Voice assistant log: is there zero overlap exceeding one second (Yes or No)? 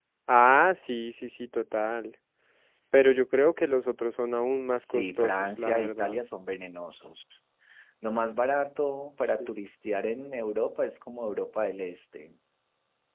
No